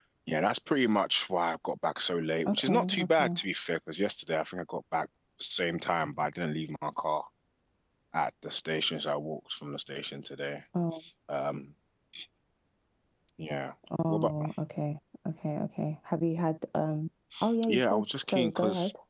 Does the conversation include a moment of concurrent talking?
Yes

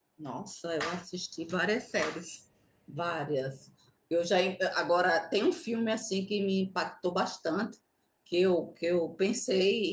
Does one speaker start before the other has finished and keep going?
No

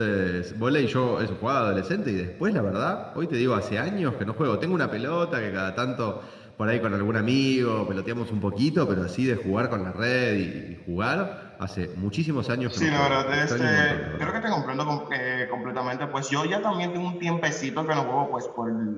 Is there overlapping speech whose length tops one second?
Yes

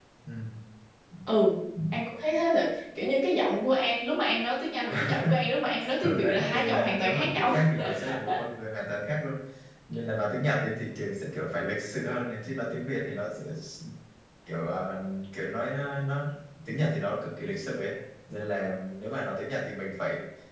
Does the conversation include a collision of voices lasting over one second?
Yes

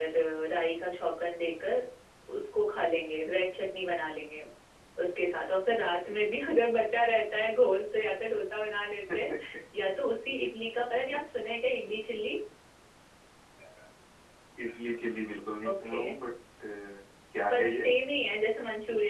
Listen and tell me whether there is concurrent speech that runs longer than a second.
No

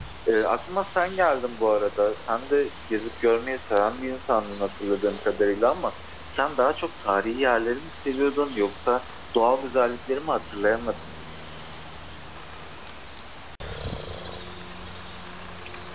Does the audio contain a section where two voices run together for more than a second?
No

